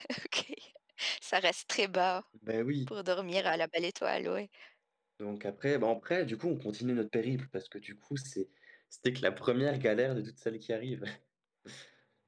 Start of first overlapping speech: none

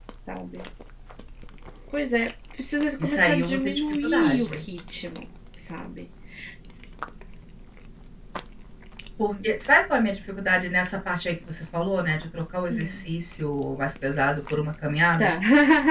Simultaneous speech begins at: 3.0 s

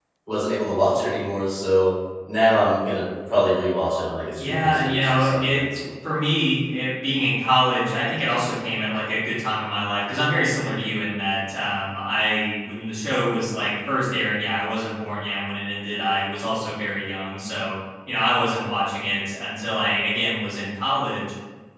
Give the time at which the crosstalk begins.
4.4 s

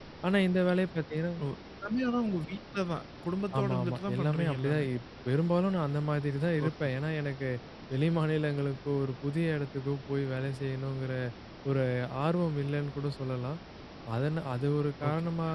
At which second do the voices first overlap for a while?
3.5 s

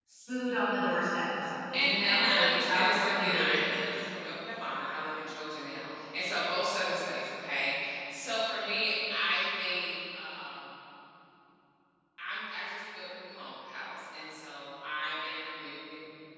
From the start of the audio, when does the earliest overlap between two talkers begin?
1.7 s

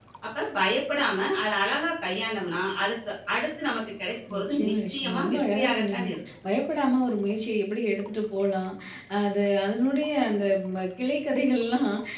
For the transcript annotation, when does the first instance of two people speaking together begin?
4.3 s

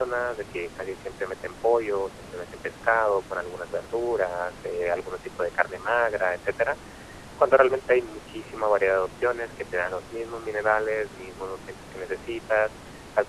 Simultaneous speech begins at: none

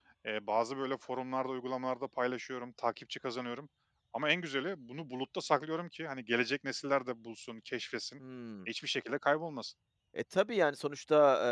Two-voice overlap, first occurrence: none

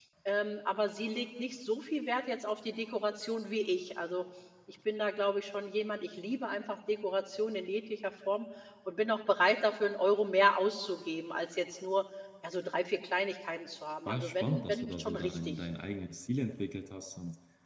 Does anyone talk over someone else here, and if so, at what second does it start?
14.1 s

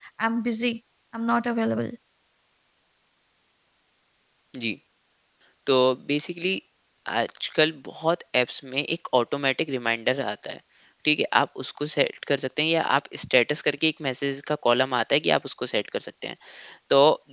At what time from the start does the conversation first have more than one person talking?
none

